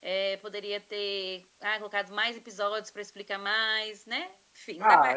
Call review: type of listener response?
taking over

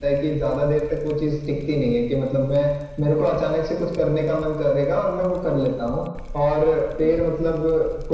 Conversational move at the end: listening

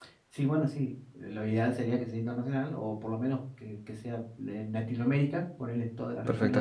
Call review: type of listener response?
taking over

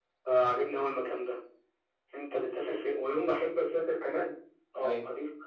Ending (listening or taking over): listening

